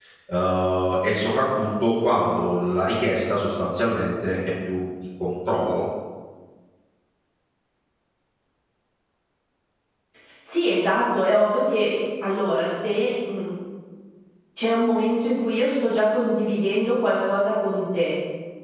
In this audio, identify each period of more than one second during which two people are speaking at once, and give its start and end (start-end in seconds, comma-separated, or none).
none